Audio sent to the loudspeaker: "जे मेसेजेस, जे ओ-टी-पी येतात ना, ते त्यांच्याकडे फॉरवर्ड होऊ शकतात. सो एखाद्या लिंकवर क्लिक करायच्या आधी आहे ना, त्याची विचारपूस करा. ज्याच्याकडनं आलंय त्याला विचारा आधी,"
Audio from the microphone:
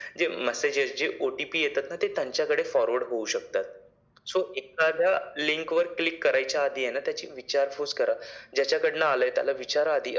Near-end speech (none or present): none